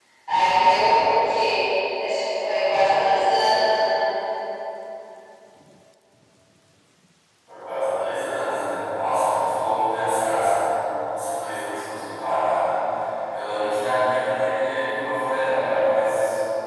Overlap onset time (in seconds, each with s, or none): none